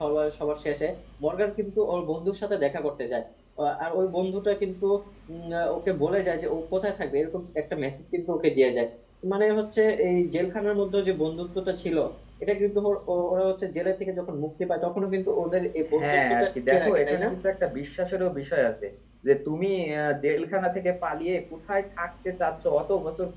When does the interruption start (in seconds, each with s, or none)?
15.9 s